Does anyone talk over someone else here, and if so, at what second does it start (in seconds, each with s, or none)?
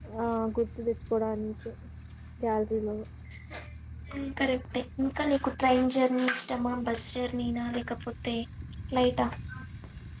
none